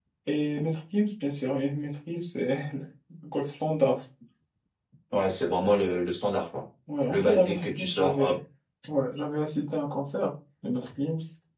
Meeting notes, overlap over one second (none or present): present